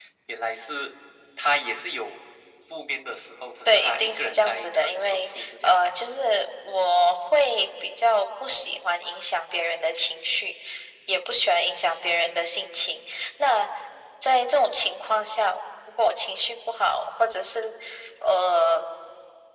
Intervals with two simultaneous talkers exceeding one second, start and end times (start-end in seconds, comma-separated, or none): 3.6-5.8